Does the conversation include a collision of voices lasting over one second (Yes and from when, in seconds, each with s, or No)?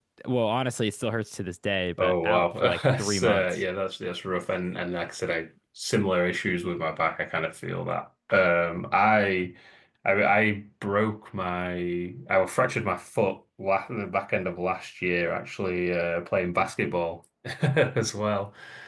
Yes, from 2.0 s